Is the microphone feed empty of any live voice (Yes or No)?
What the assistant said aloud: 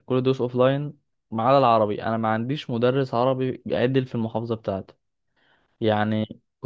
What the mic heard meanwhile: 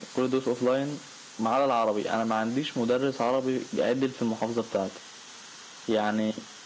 Yes